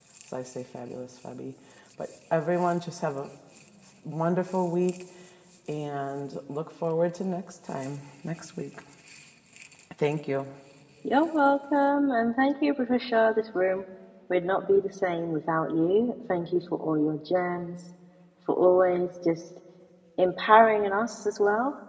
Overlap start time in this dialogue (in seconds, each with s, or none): none